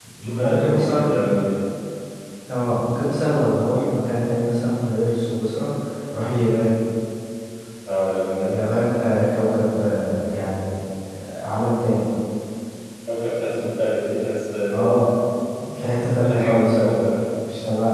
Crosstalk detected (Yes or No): Yes